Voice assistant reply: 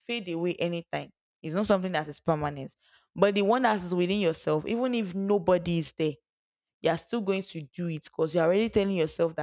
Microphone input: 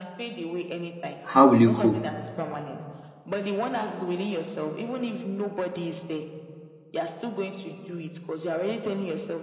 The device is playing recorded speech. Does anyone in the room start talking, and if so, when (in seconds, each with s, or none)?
1.2 s